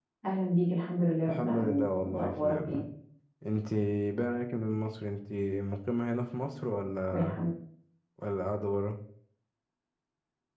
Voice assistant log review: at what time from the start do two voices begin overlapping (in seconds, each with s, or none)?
1.3 s